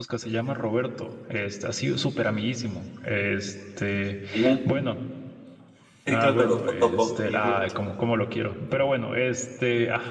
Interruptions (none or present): present